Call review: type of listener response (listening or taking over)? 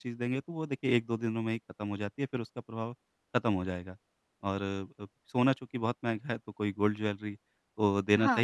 listening